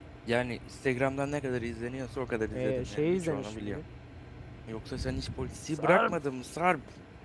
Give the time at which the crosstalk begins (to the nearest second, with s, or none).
3 s